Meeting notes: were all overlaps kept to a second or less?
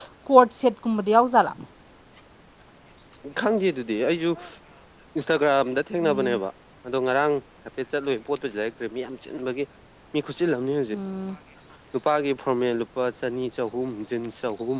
Yes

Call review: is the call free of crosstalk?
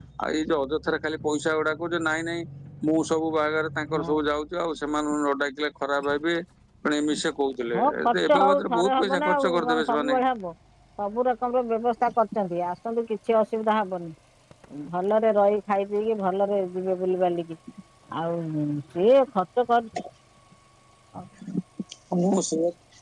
No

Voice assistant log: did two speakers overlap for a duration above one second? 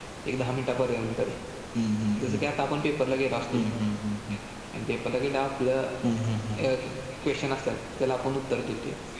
No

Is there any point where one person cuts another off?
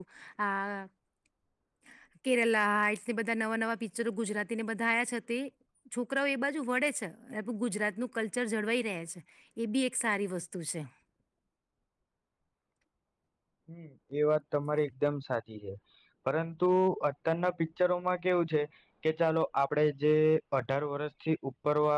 No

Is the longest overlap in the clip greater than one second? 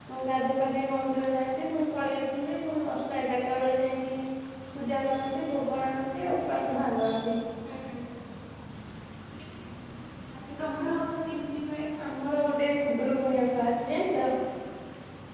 No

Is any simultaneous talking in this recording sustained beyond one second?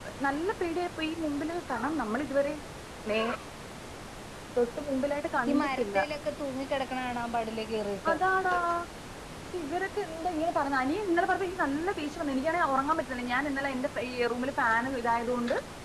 No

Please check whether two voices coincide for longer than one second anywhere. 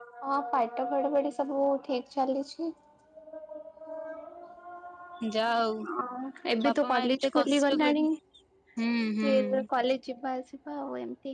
Yes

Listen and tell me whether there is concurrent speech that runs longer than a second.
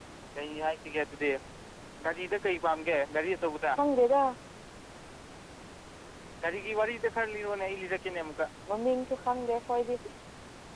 No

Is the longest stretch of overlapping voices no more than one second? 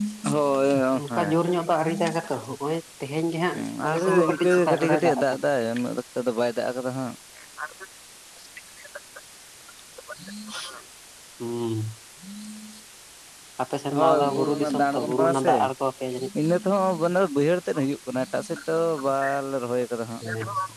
No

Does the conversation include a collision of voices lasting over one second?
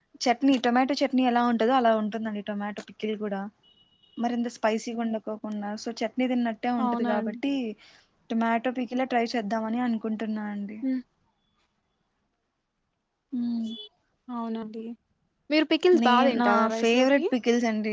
Yes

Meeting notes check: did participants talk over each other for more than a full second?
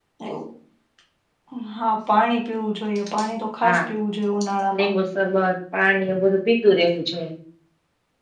No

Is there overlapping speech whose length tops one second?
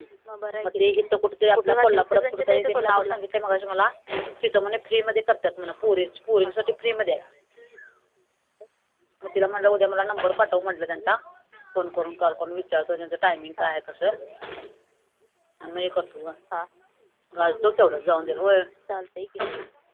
Yes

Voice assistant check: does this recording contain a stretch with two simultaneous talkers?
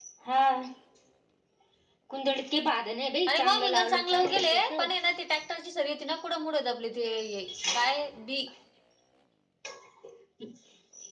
Yes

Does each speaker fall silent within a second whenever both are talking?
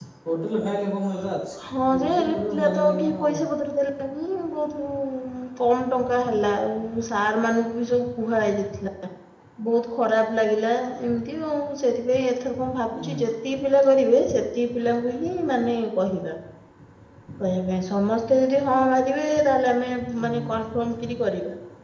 No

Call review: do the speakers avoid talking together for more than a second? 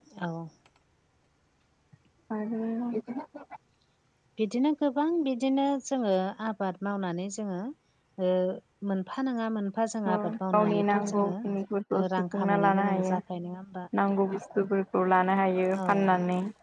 No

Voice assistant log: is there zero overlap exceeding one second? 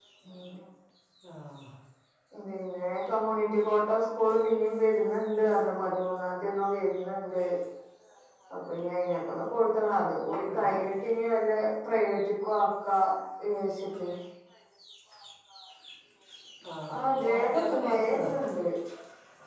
No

